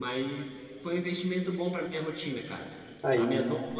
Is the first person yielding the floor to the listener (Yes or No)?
No